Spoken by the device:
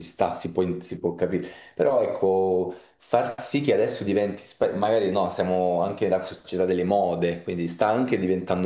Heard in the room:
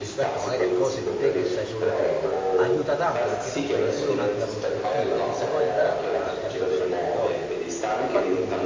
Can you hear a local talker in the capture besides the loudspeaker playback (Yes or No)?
Yes